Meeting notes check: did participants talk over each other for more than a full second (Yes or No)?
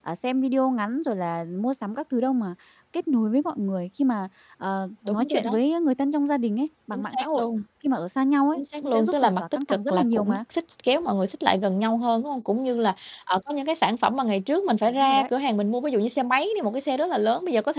Yes